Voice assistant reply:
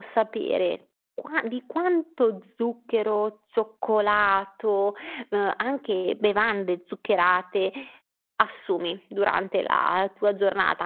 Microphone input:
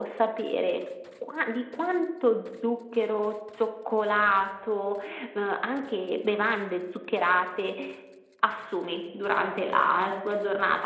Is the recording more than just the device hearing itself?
No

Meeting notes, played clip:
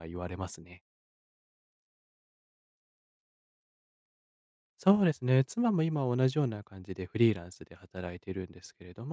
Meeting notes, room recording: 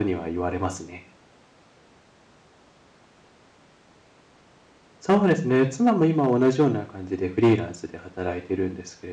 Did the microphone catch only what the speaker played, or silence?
Yes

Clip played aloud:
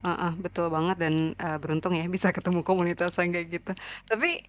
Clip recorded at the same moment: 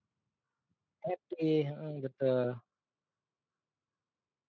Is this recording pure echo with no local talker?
No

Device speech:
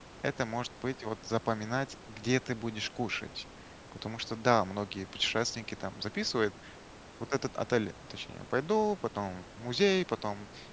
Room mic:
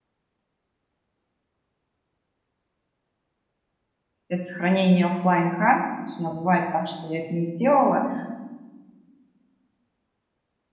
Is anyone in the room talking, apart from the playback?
Yes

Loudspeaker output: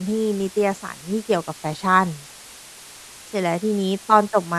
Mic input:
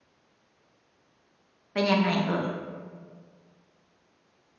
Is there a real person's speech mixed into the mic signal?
Yes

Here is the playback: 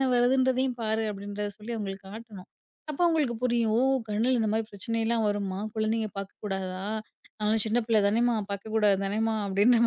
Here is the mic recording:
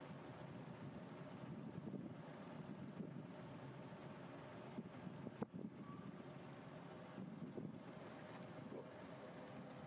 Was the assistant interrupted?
No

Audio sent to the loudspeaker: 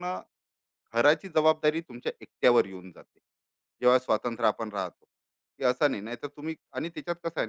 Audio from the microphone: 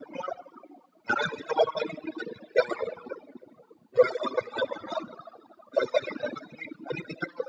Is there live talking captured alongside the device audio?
No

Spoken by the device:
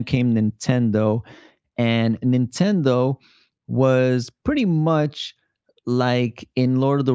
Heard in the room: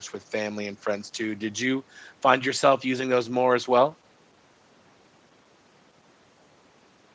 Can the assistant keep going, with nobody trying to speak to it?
No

